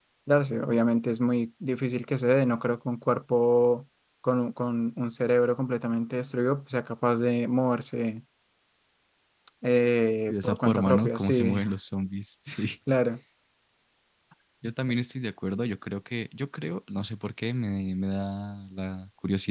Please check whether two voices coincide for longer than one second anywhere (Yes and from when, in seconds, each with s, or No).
Yes, from 10.3 s